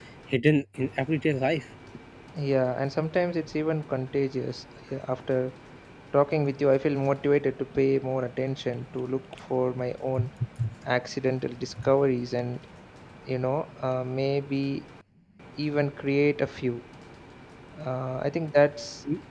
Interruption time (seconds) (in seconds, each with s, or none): none